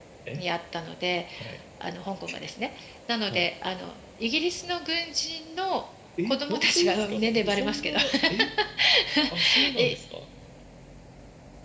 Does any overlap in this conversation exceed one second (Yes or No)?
Yes